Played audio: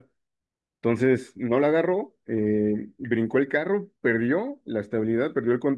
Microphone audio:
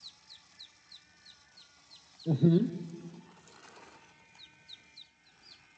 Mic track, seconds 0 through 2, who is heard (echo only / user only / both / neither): neither